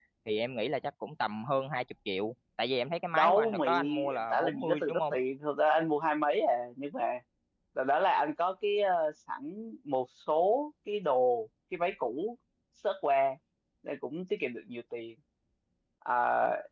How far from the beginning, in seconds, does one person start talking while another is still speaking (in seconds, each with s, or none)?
3.1 s